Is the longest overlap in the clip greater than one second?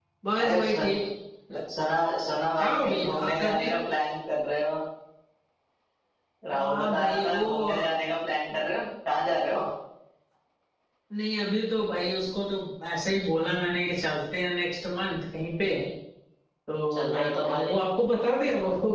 Yes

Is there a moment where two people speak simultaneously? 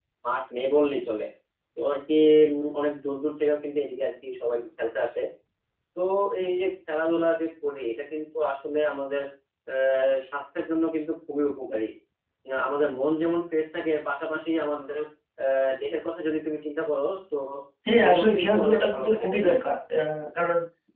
Yes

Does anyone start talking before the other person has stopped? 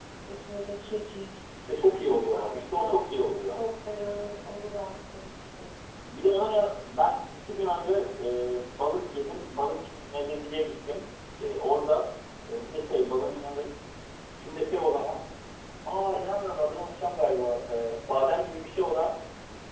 Yes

